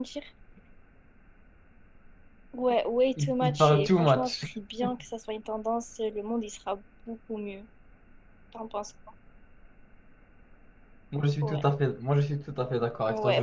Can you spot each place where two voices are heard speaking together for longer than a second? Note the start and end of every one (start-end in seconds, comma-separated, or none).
3.2-4.4